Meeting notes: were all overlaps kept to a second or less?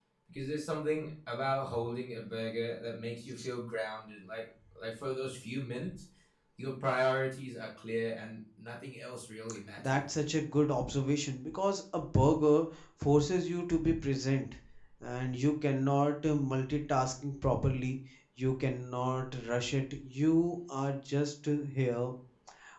Yes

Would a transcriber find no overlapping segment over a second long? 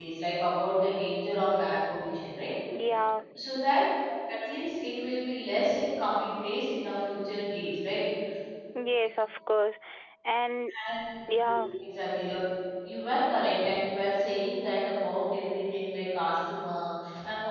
Yes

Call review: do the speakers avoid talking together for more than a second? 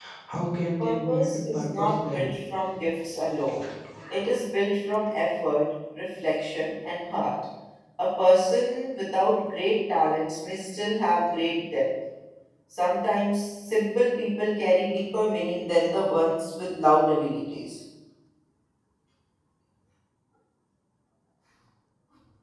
No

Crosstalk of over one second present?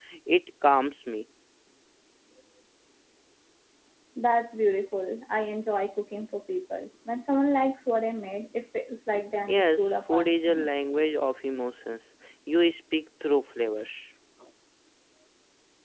Yes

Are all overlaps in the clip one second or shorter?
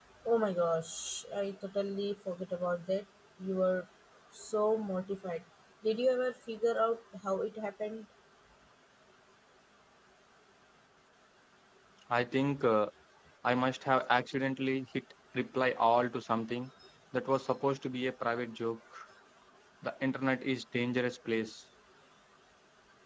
Yes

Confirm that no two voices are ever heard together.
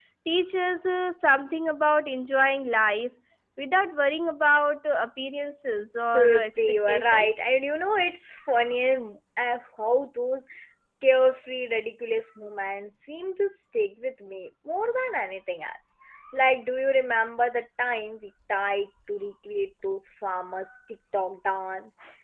No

